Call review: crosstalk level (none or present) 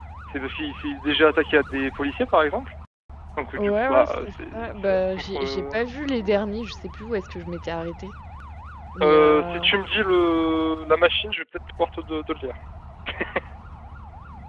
present